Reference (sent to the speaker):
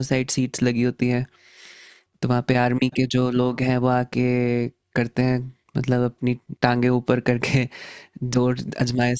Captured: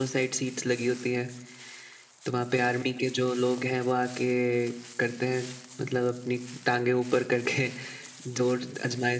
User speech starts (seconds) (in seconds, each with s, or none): none